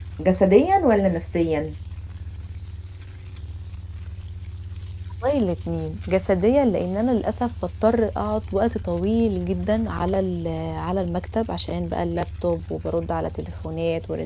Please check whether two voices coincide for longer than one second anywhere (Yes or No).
No